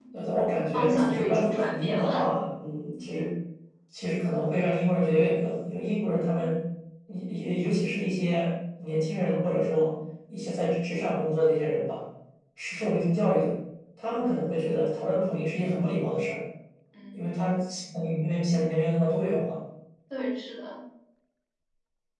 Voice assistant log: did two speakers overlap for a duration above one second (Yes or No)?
Yes